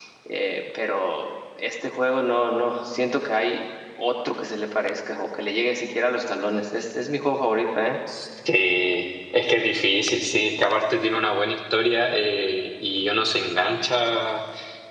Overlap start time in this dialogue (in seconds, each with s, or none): none